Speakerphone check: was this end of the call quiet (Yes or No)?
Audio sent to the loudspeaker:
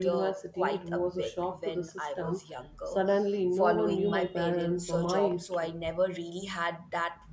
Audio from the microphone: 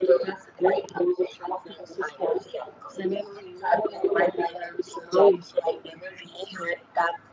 Yes